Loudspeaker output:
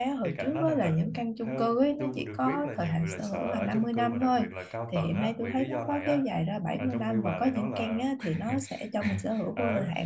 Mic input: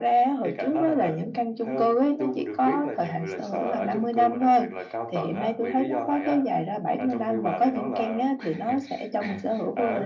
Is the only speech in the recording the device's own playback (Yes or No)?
Yes